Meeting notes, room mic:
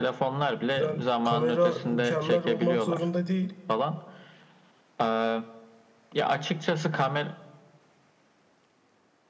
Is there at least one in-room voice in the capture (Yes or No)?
Yes